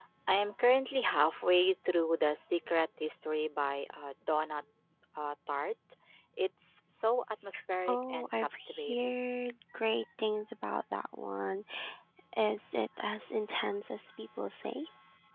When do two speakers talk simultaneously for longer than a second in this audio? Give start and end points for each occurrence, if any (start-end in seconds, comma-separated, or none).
7.9-9.1